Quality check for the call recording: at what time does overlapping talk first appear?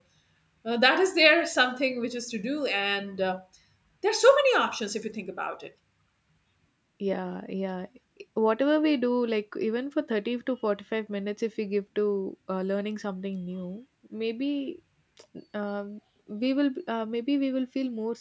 none

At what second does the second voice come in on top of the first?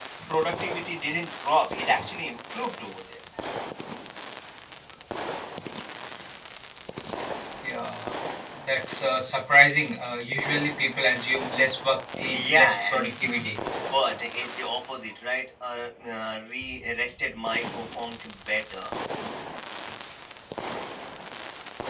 12.2 s

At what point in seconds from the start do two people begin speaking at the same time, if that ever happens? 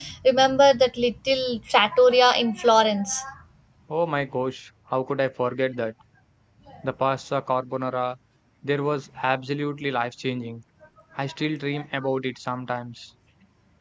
none

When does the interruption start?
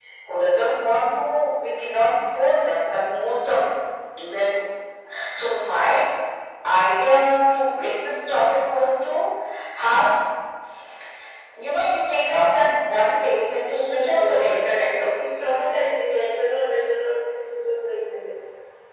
13.7 s

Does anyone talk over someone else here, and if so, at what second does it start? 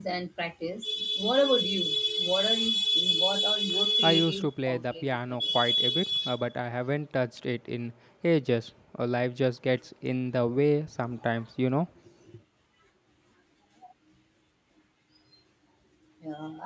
4.0 s

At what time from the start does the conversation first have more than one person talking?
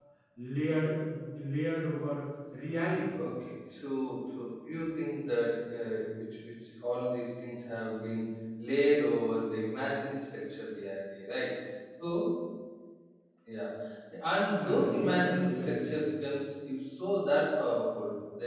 14.5 s

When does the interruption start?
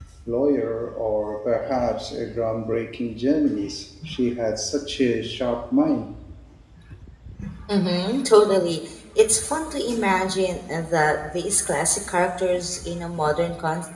none

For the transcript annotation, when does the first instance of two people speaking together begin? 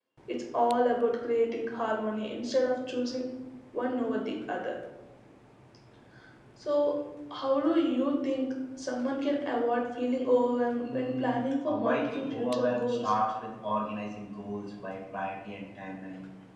10.8 s

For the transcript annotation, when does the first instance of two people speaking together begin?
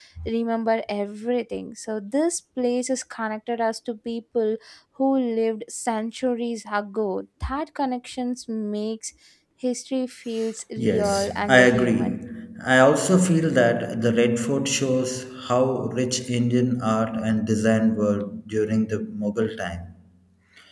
10.8 s

